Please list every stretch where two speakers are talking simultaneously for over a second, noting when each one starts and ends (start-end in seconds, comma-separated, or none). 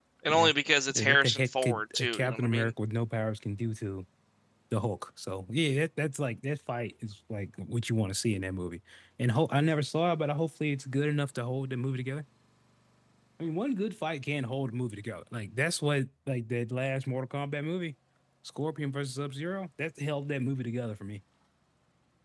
0.9-2.7